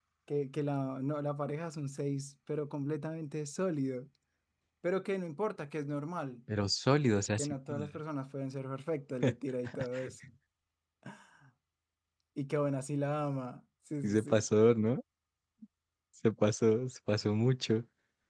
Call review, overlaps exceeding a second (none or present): none